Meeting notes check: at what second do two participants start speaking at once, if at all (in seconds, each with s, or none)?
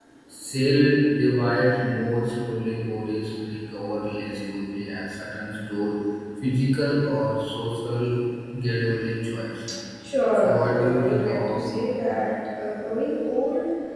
10.4 s